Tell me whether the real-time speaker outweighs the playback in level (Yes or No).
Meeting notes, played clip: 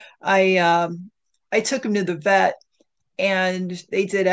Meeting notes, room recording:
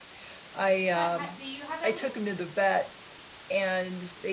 No